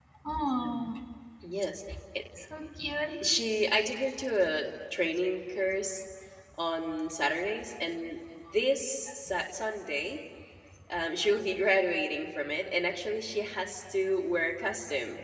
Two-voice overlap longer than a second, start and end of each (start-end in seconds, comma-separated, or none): none